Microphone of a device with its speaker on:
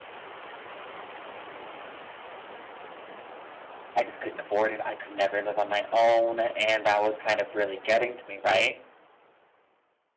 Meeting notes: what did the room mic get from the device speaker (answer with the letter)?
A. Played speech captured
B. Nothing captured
B